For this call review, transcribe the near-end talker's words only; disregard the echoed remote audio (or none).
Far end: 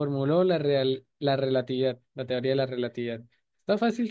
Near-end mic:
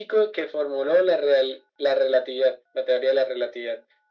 none